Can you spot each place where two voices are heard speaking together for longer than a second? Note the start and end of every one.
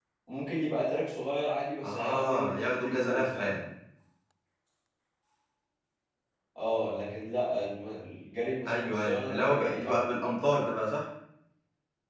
1.8-3.6, 8.7-10.0

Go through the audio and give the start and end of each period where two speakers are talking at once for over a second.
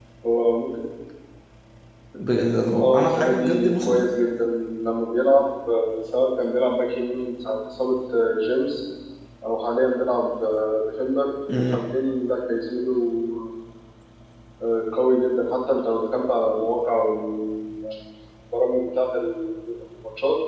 2.8-4.1

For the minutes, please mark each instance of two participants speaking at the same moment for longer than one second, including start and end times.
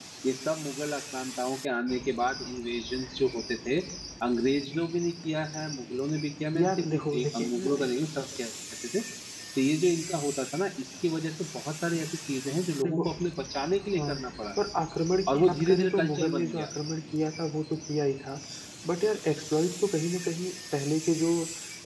6.6-7.9, 15.3-16.6

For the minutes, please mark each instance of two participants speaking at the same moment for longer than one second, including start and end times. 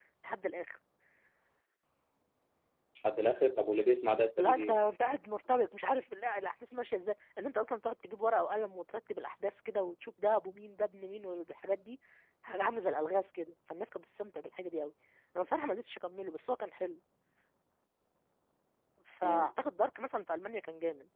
none

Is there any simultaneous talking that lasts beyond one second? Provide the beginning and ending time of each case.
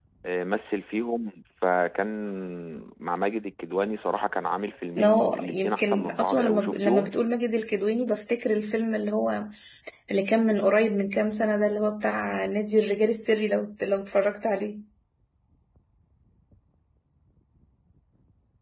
5.0-7.1

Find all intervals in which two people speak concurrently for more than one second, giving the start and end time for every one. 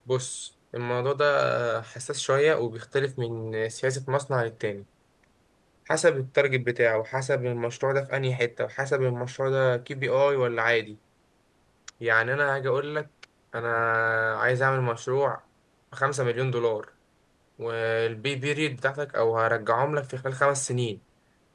none

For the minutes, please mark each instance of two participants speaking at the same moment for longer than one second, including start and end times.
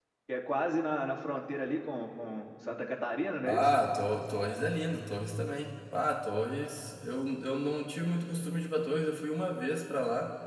none

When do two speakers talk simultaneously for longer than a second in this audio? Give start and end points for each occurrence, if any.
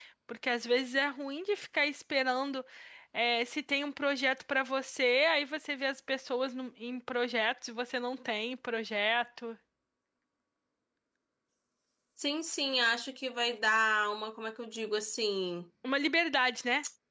none

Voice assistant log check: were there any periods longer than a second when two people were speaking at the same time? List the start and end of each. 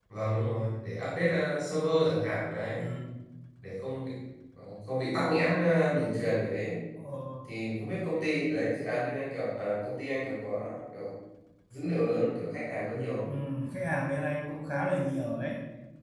none

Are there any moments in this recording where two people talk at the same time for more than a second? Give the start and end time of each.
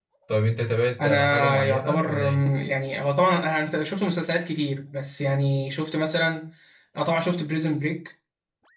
1.0-2.4

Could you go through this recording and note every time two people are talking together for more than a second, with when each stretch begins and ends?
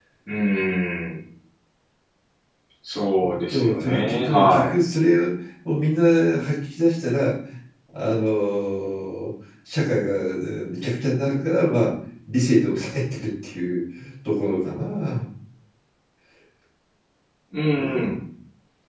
3.5-4.7

